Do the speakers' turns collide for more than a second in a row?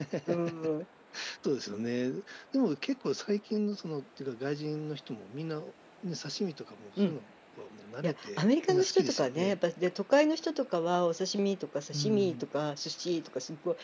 Yes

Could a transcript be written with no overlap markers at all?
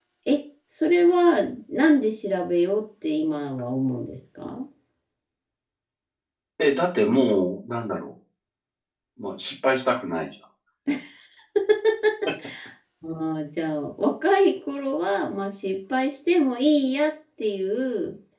Yes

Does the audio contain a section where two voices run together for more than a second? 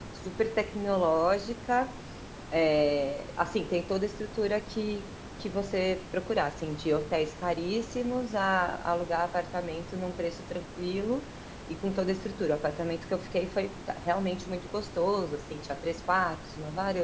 No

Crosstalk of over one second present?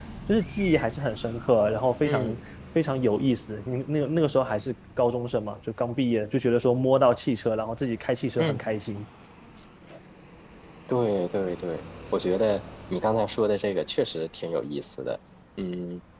No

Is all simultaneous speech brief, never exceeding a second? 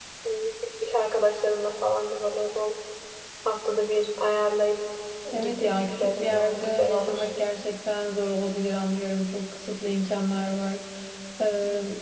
No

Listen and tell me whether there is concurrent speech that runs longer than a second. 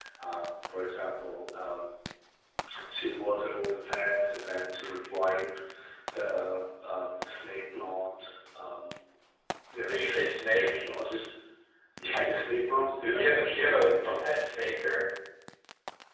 Yes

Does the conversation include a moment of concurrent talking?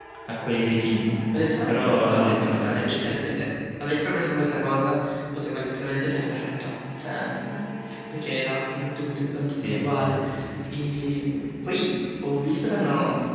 Yes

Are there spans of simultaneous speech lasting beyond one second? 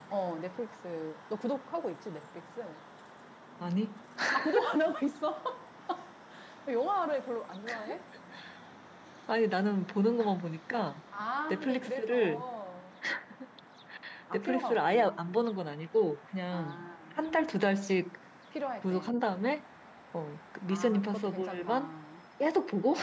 Yes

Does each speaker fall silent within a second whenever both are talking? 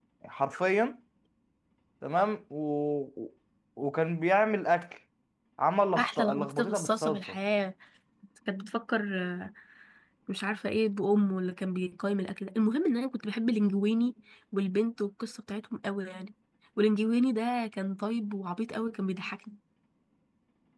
No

